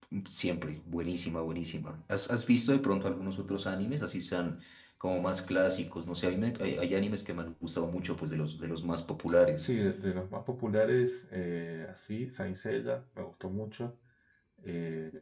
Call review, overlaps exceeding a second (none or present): none